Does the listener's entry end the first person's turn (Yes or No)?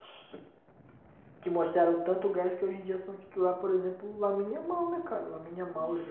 Yes